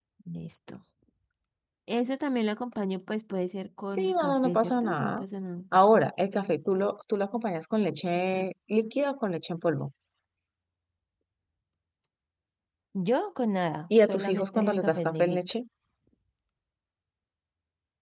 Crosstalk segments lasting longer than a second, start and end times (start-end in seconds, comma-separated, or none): 3.9-5.2, 14.0-15.4